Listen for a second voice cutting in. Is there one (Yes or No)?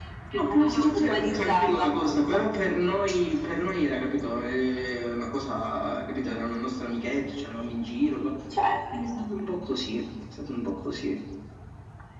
Yes